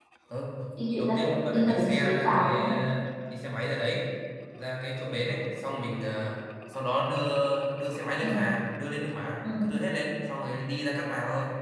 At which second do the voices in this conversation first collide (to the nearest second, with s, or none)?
1 s